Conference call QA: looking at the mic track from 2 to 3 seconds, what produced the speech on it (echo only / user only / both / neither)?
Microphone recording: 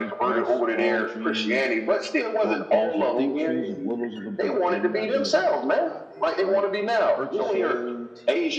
both